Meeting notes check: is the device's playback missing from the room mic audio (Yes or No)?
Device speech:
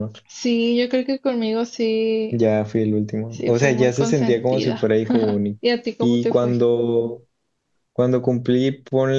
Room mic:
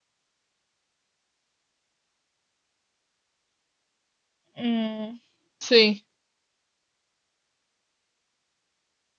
Yes